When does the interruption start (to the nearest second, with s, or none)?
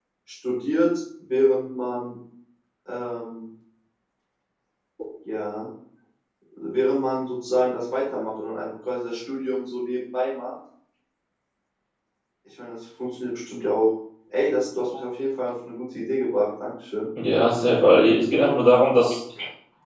none